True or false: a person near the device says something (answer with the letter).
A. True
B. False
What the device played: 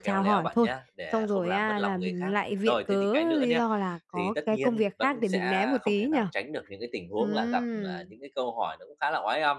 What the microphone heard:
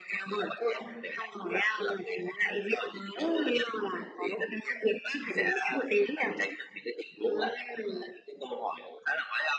B